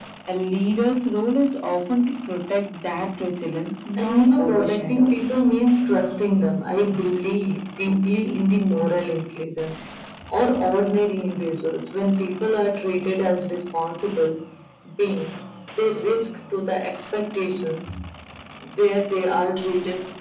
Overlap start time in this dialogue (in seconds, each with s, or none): 4.0 s